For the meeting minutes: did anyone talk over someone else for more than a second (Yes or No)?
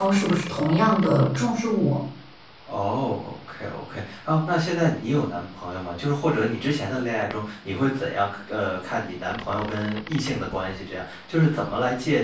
No